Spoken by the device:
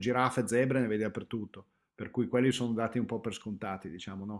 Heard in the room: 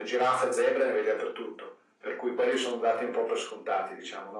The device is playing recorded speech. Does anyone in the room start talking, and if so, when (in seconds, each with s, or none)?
none